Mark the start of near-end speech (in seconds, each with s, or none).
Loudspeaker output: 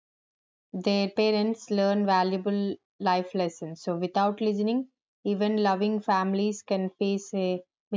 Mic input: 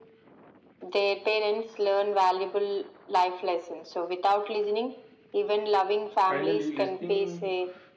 6.2 s